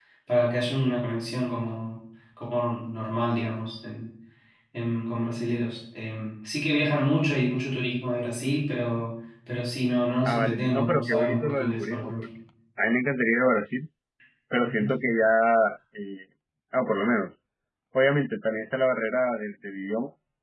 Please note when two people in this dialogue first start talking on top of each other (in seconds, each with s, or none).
10.2 s